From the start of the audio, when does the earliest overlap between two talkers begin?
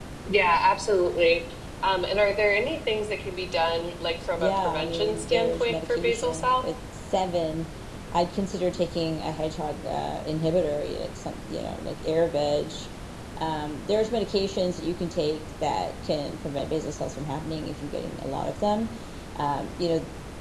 4 s

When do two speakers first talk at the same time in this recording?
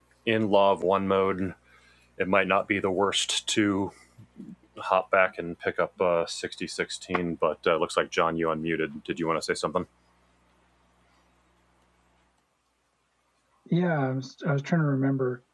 none

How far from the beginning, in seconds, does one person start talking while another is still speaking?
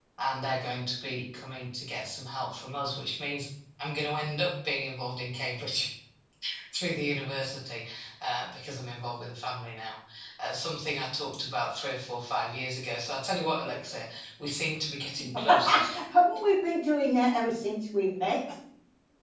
none

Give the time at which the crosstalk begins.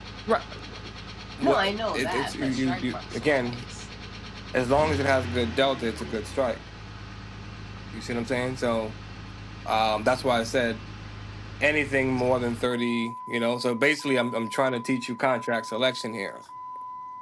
1 s

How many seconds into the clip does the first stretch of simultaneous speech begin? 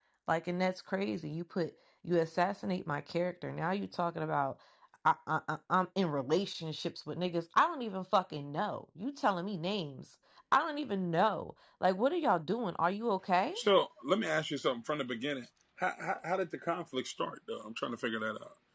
none

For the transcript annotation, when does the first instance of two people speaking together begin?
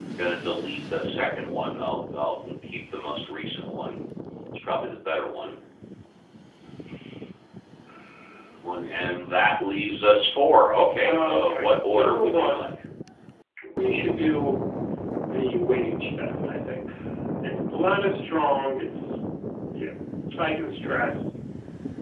11 s

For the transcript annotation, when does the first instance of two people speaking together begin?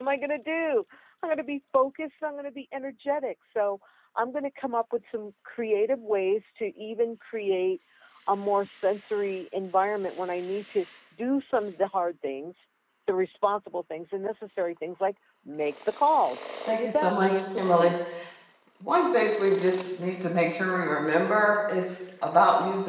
17 s

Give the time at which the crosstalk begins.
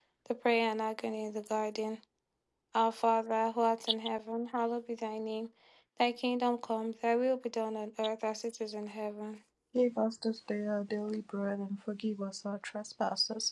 none

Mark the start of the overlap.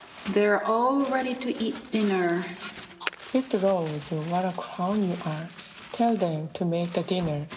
none

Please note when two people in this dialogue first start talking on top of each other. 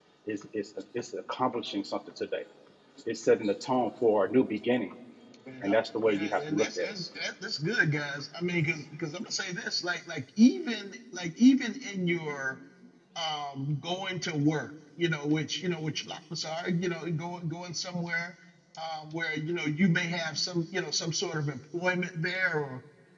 6 s

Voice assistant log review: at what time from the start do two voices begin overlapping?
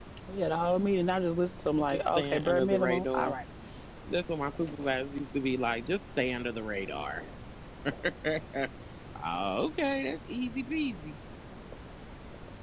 2 s

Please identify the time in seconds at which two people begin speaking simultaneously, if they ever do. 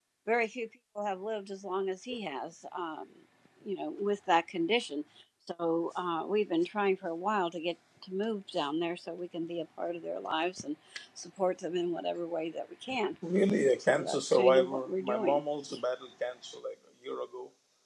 14 s

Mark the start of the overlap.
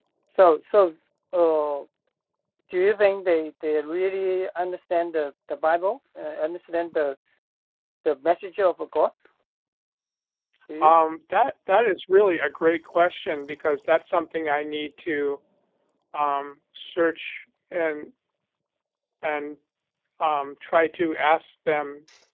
none

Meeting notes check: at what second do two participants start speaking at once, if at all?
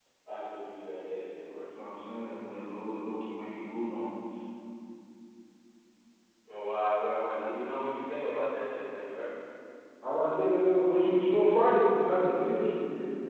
none

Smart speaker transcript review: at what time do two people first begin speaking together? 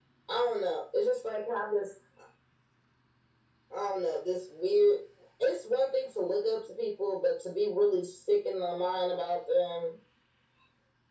none

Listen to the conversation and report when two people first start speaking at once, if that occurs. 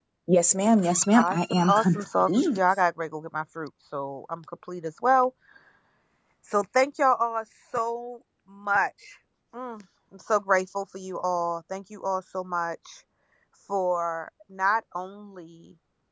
1 s

